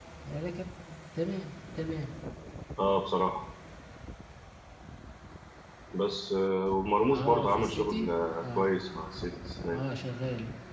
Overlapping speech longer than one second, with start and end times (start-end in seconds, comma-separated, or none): 7.2-8.7